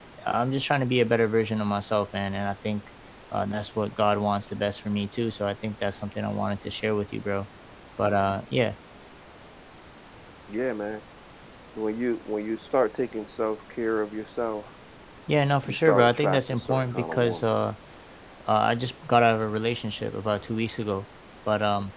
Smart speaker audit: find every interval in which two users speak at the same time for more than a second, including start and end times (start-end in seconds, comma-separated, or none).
15.7-17.4